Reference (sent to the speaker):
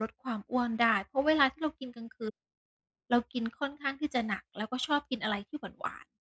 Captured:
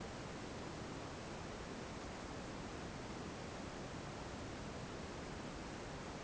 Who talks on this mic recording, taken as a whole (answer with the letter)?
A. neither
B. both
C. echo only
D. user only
A